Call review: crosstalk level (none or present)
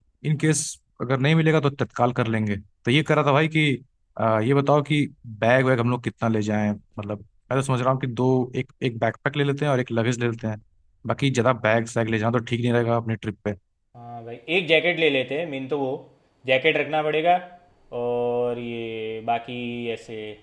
none